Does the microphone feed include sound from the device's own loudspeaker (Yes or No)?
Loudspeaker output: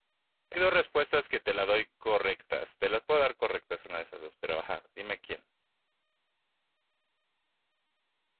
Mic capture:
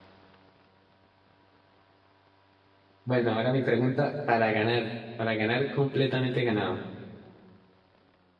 No